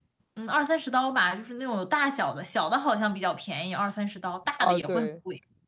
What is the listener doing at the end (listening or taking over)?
taking over